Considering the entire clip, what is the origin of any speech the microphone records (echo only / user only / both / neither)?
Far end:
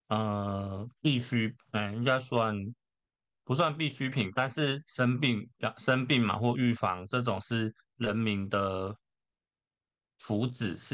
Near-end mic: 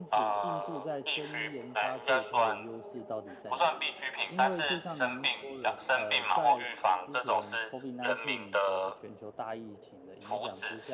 both